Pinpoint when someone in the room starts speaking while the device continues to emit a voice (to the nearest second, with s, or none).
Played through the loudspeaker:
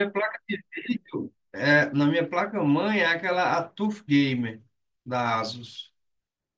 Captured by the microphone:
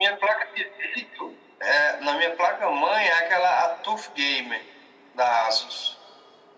none